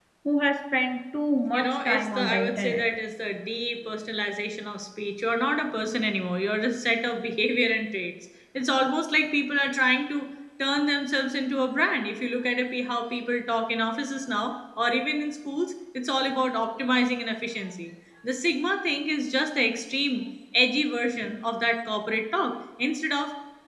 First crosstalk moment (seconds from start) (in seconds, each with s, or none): 1.5 s